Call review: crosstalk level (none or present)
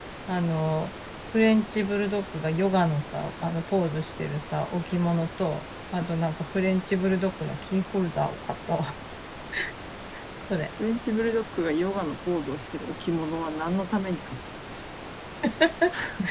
none